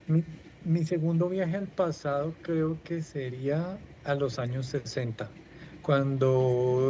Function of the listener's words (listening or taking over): listening